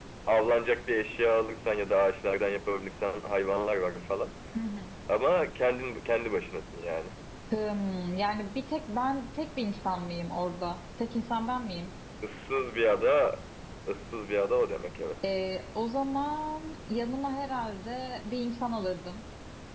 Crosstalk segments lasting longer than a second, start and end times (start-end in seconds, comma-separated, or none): none